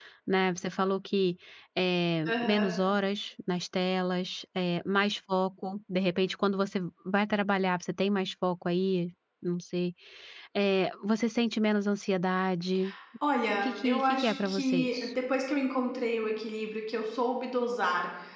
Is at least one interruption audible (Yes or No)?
Yes